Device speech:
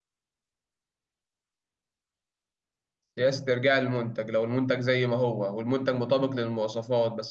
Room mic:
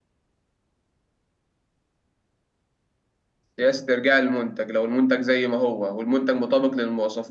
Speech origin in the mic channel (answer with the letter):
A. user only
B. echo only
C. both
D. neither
B